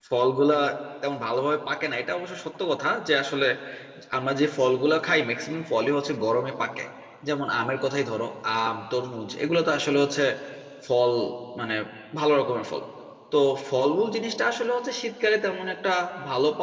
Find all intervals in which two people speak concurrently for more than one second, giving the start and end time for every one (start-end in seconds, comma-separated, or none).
none